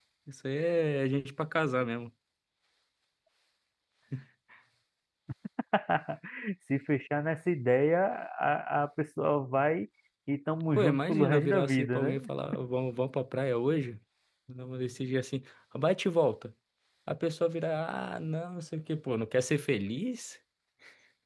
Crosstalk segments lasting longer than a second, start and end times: 10.7-12.2

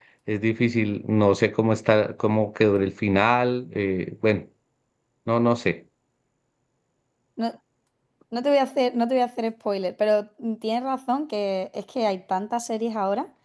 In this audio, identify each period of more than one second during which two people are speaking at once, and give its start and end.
none

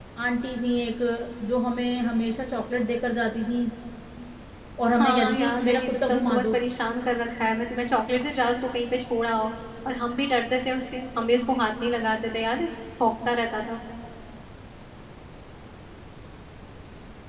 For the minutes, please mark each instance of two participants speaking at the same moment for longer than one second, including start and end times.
4.9-6.5

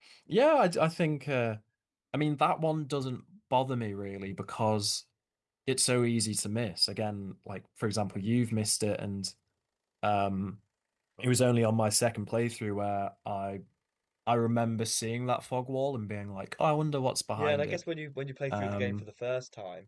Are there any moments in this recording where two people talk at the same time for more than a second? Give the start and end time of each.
none

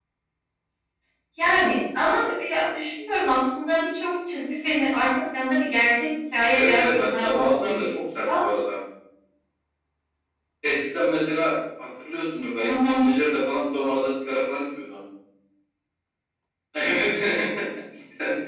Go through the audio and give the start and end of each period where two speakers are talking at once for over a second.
6.5-7.8

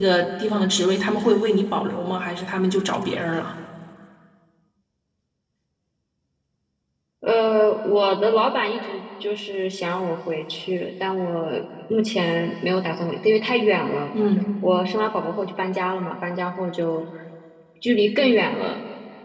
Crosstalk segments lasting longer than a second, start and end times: none

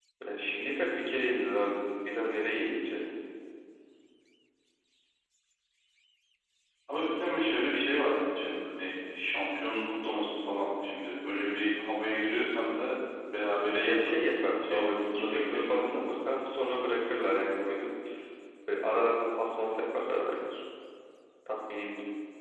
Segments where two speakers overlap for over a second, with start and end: 14.6-16.0

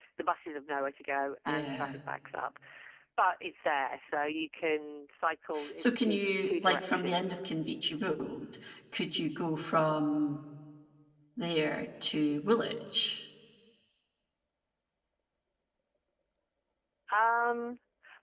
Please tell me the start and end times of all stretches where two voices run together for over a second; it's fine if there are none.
5.8-7.4

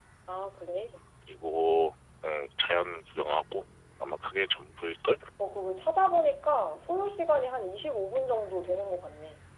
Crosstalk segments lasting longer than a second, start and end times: none

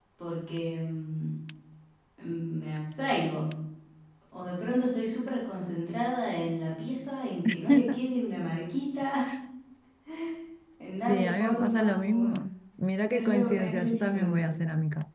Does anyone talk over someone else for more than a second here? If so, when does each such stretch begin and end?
11.0-12.3, 13.1-14.5

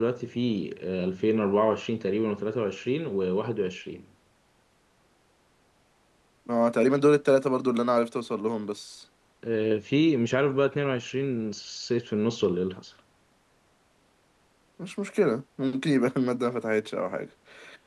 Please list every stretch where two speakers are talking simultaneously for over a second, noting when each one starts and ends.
none

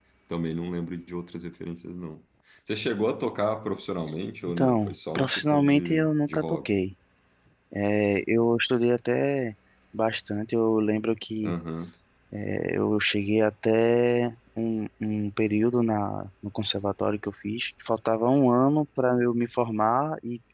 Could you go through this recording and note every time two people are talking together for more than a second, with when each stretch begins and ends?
4.5-6.7

